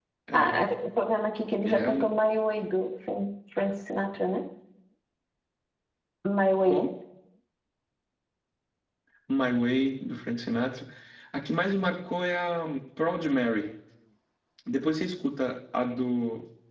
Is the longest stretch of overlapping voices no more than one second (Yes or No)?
Yes